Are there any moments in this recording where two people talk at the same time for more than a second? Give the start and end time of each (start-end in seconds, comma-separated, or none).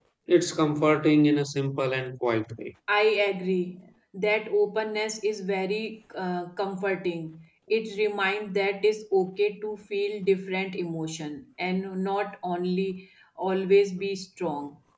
none